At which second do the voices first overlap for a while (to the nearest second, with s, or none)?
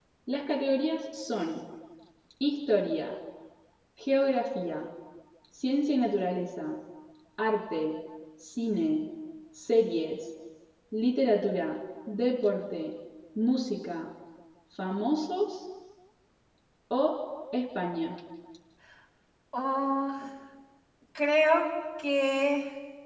none